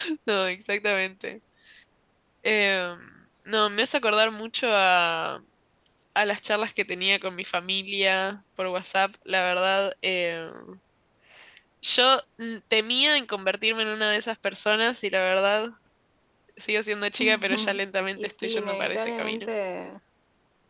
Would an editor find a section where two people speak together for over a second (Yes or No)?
Yes